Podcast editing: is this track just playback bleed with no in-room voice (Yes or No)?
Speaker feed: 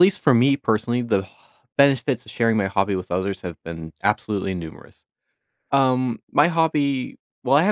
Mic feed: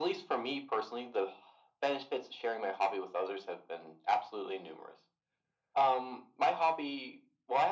Yes